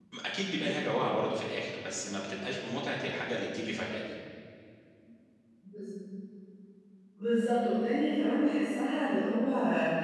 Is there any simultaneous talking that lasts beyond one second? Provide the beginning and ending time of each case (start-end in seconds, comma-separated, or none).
none